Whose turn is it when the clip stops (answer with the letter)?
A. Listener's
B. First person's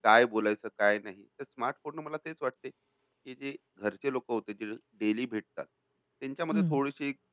B